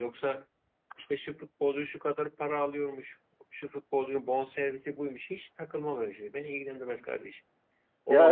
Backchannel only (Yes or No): Yes